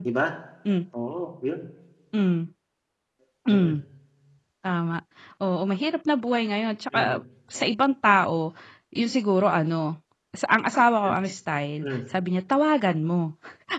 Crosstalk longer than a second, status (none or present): none